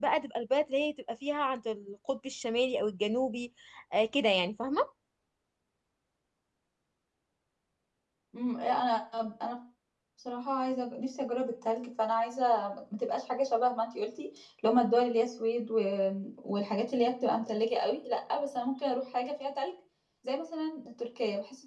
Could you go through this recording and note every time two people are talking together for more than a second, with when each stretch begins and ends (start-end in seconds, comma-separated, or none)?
none